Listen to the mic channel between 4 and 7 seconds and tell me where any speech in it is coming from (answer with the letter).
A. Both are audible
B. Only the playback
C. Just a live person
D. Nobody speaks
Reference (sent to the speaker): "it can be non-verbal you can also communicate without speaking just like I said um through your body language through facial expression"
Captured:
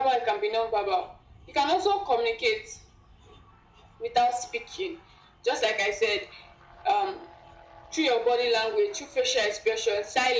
B